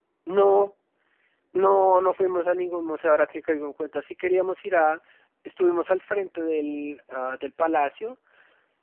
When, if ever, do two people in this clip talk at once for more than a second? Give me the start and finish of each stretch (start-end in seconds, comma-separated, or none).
none